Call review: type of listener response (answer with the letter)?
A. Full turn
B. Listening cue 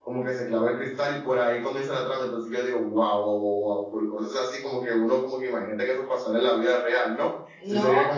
A